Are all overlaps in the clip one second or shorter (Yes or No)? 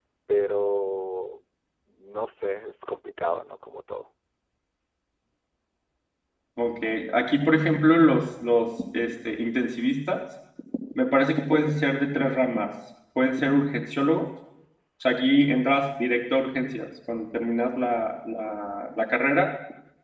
Yes